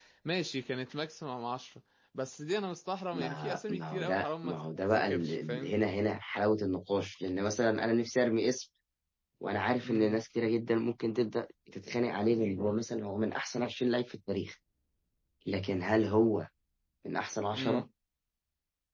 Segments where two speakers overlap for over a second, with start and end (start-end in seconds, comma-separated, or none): 3.1-5.7